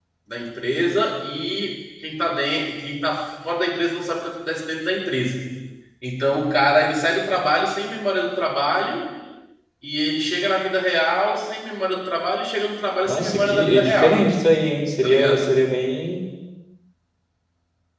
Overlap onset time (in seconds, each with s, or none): 13.1 s